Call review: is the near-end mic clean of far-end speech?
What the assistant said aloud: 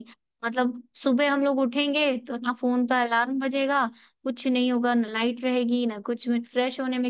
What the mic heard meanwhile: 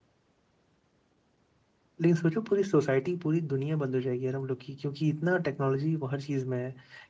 Yes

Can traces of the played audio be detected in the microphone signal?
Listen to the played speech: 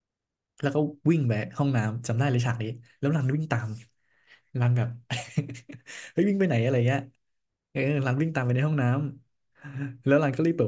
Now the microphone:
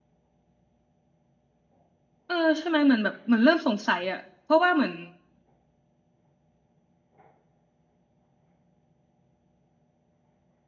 No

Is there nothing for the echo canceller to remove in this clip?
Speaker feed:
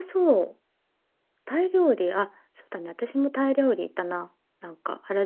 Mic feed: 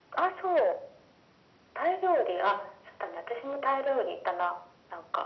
No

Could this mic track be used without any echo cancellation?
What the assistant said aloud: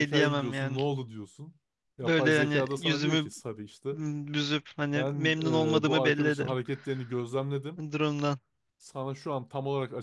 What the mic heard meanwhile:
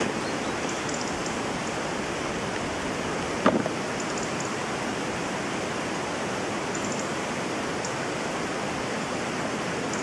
Yes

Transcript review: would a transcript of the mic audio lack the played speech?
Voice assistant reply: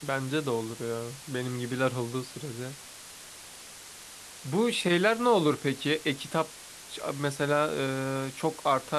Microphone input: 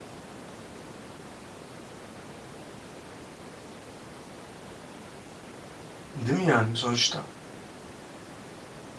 Yes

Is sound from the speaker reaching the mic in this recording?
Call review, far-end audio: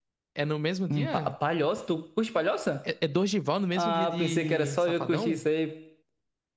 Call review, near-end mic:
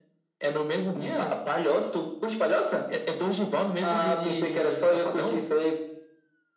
Yes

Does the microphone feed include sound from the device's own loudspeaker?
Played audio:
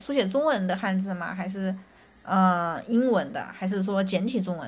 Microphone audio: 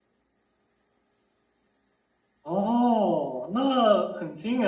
No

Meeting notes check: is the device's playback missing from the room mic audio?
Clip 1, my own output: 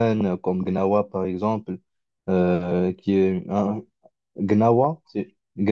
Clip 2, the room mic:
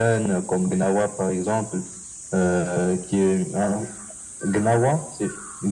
No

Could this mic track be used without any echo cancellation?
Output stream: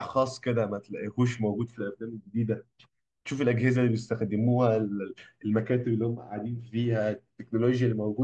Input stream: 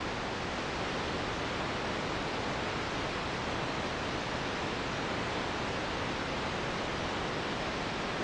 Yes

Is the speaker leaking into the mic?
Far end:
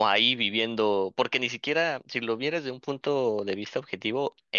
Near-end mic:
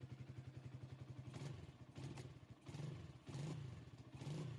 No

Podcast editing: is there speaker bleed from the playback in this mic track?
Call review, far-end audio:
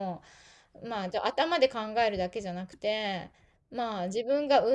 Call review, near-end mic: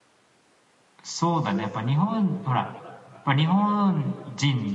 No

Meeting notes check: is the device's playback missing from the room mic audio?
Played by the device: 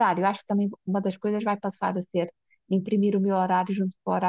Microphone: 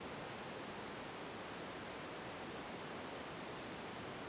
Yes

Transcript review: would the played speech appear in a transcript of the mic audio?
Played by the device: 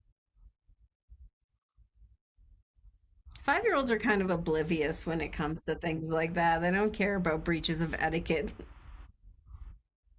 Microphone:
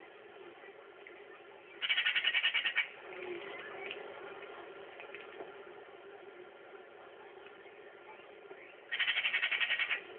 No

